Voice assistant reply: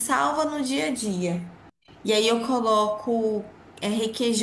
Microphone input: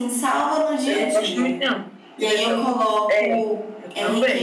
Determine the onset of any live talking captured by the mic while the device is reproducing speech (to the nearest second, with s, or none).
1 s